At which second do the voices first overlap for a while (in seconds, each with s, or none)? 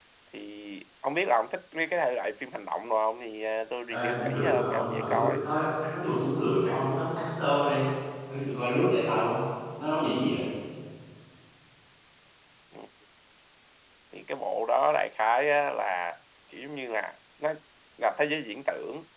3.9 s